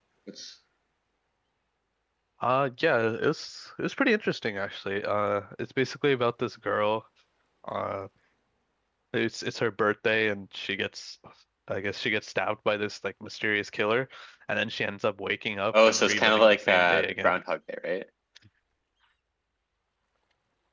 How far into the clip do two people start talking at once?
16 s

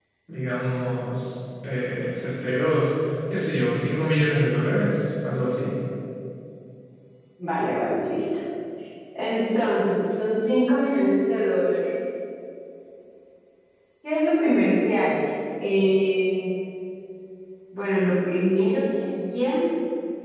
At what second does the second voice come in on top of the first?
none

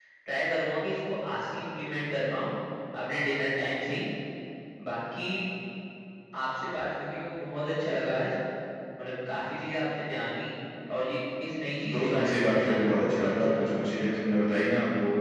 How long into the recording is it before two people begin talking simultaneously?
12 s

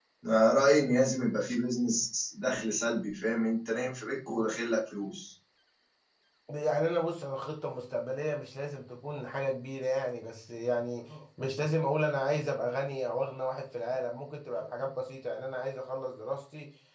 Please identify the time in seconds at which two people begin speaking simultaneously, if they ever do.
none

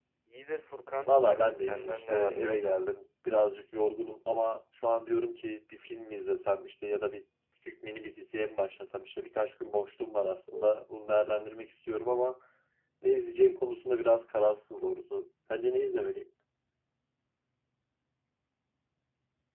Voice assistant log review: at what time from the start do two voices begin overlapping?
1 s

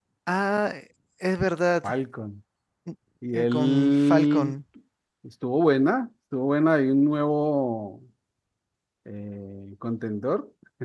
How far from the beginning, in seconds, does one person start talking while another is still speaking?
3 s

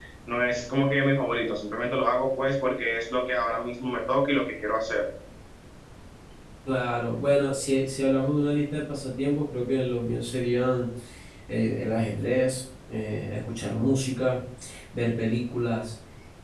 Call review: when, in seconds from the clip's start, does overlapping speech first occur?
none

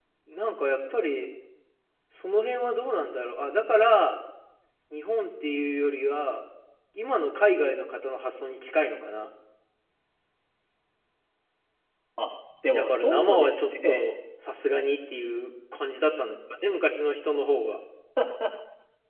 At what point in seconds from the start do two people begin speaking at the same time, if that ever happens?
13 s

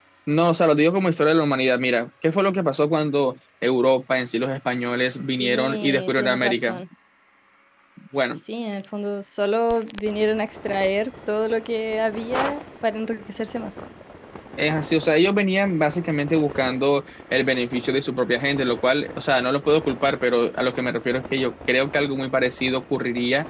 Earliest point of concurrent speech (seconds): 5 s

